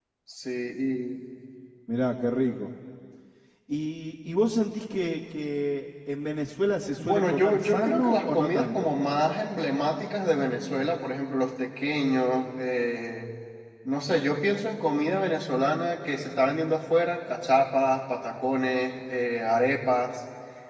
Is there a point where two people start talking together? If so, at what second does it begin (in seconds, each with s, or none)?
7.0 s